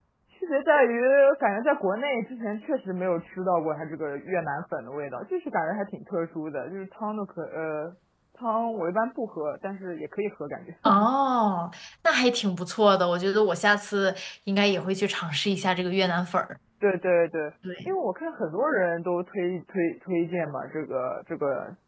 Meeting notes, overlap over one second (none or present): none